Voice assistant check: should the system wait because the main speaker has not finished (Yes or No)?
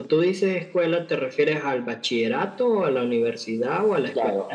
No